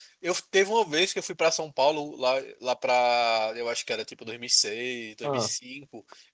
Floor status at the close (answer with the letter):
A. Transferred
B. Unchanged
B